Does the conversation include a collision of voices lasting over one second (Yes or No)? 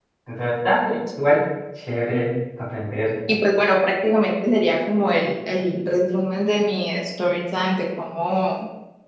No